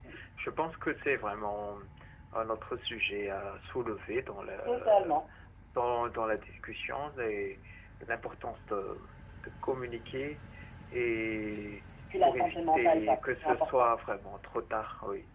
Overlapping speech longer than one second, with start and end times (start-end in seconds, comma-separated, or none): 12.2-13.9